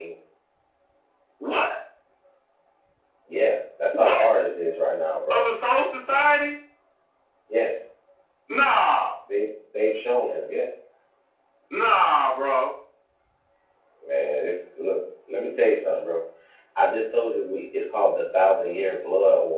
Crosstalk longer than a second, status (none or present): none